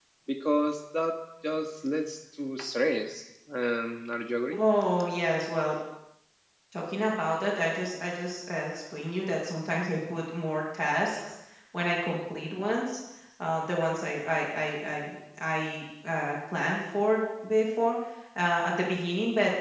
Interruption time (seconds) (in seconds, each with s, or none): none